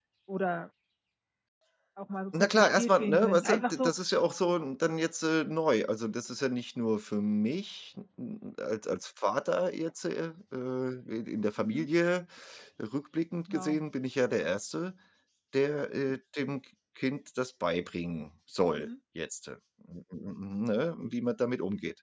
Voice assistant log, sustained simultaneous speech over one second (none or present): present